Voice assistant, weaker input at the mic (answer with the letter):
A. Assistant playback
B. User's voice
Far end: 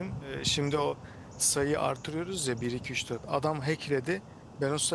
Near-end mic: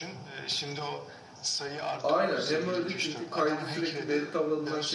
A